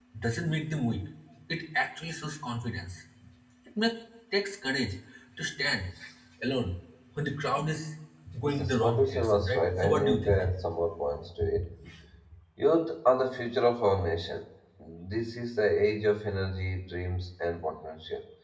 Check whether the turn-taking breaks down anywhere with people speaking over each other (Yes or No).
Yes